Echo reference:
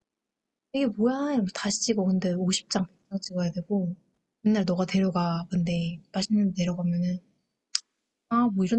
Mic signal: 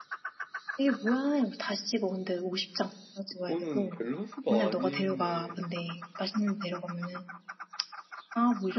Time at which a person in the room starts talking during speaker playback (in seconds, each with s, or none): 3.3 s